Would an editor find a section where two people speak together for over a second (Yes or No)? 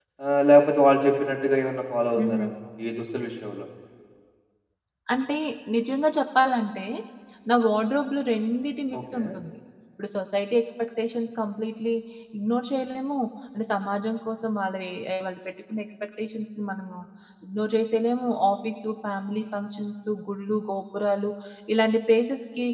No